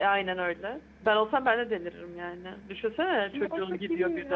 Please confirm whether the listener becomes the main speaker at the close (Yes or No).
Yes